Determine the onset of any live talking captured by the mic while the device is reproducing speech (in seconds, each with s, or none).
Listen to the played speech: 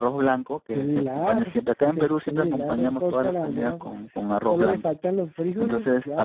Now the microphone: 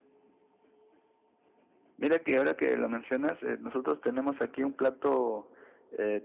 2.0 s